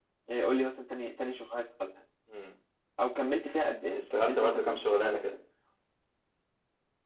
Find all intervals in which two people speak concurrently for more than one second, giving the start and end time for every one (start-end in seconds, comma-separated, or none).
3.9-5.3